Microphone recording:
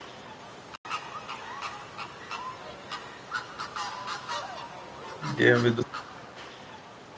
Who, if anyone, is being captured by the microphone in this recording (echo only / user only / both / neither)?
user only